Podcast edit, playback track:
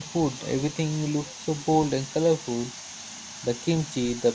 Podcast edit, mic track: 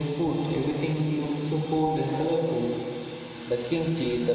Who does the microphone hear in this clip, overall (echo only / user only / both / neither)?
echo only